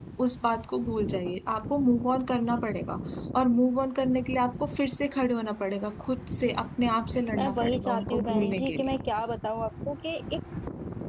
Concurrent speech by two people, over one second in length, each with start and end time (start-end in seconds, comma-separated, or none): 7.4-8.9